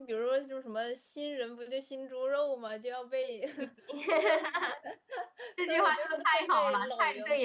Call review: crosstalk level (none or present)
present